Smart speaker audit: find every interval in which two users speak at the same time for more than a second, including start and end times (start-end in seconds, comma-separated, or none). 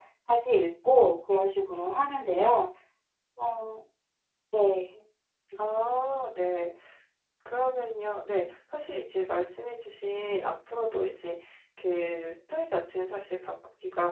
none